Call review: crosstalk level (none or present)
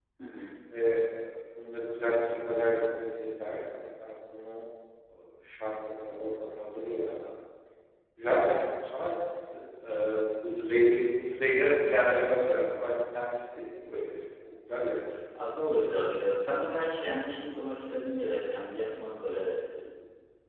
none